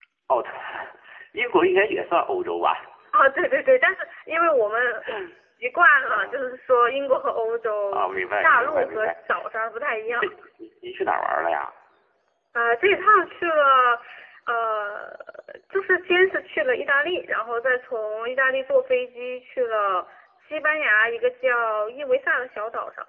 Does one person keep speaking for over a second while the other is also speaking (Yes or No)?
Yes